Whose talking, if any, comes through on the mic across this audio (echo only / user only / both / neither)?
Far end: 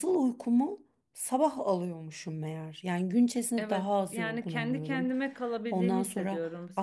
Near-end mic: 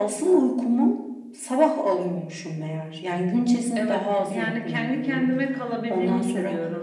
echo only